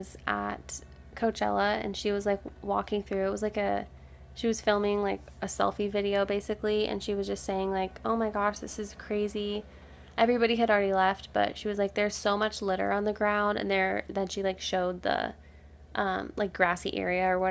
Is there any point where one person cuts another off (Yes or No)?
No